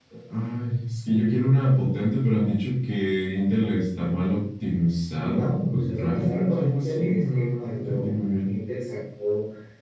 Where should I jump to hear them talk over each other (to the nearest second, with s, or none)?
5 s